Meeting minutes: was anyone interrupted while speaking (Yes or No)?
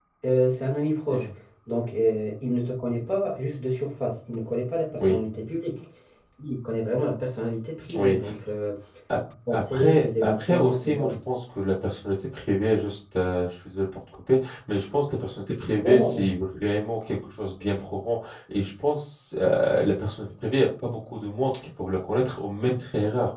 Yes